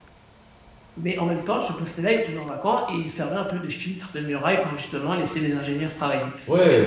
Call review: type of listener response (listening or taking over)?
taking over